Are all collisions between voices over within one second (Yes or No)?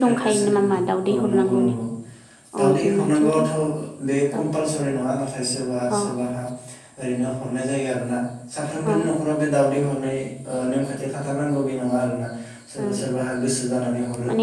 No